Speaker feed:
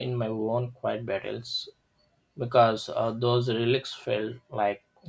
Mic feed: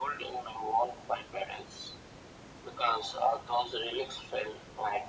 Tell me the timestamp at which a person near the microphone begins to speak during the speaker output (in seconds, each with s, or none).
none